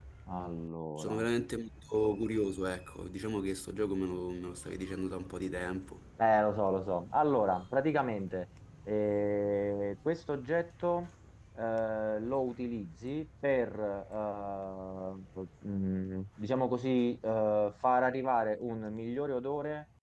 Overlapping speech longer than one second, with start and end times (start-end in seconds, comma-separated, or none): none